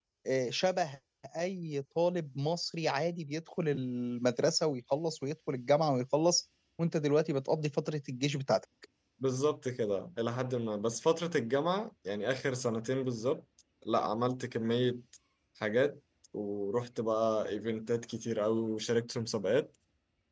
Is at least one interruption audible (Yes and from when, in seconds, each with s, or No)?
No